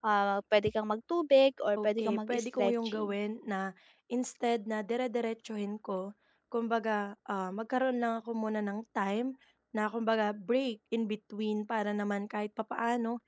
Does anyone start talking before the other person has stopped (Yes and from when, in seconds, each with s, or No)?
Yes, from 1.8 s